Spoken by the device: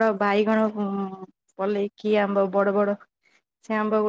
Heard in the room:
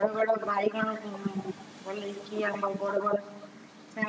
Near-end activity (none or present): none